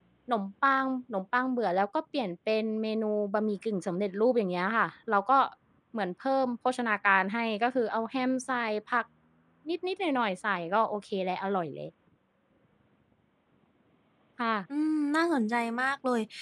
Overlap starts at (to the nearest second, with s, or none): none